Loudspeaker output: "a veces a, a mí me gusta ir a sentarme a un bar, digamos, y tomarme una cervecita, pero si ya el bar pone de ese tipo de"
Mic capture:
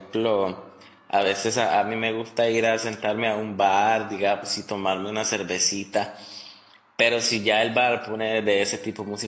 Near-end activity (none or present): none